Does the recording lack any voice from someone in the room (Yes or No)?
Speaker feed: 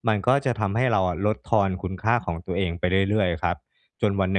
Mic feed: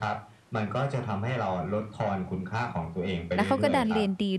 No